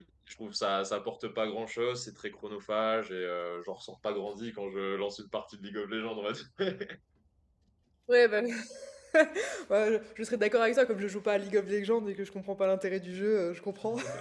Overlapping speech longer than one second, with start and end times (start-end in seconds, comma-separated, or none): none